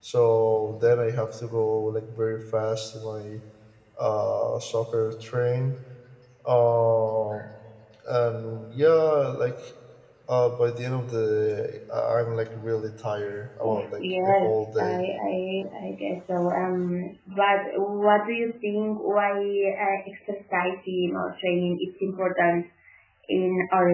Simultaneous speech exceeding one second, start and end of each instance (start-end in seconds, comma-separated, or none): 13.7-15.0